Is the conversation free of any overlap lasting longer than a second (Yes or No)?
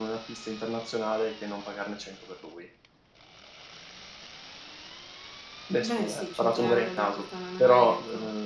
No